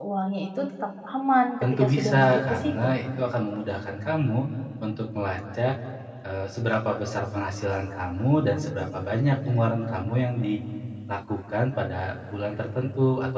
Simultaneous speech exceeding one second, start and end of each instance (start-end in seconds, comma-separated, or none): 1.6-2.9